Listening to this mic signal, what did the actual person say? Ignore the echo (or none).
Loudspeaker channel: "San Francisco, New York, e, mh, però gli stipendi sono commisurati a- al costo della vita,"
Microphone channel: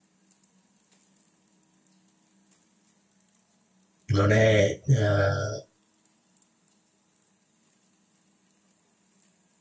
non è, eh,